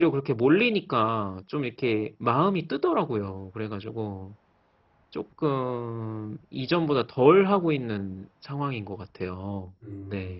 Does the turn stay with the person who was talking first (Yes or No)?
No